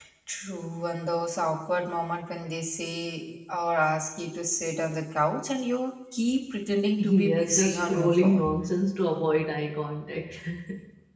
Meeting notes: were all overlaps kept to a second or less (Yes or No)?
No